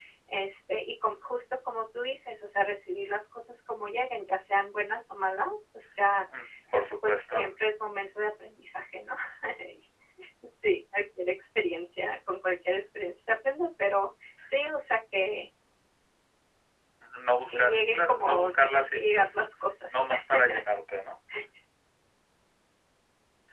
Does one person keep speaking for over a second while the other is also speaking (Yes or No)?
Yes